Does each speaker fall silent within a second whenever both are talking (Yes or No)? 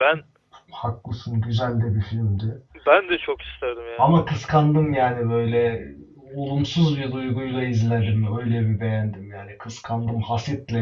Yes